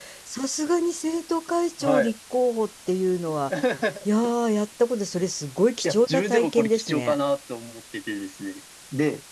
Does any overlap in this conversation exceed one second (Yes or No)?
Yes